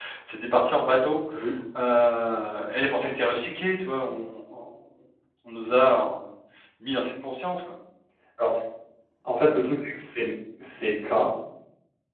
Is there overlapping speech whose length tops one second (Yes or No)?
No